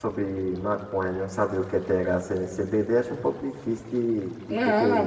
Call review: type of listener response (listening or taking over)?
taking over